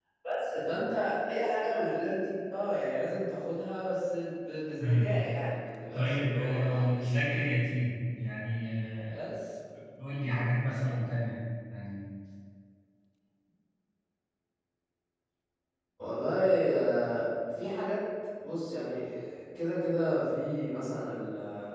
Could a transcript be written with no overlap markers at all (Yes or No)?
No